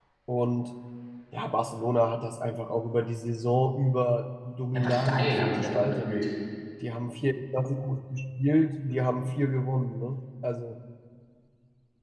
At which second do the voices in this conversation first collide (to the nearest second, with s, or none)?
5 s